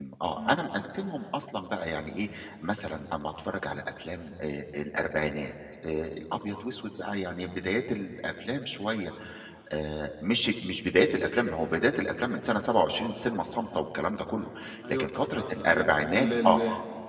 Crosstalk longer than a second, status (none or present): present